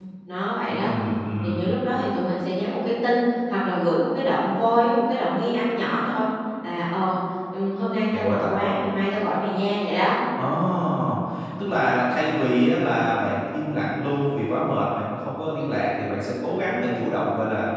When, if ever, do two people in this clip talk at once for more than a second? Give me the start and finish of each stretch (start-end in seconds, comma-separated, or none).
none